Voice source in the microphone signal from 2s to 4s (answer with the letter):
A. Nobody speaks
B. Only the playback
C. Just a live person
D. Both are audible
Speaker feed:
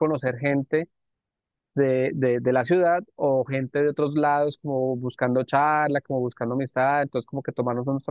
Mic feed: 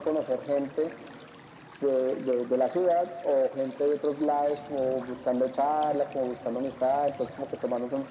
B